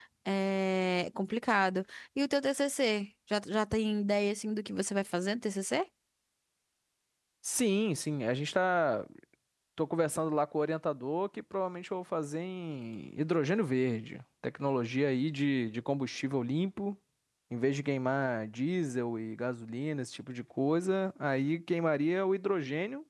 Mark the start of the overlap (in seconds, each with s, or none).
none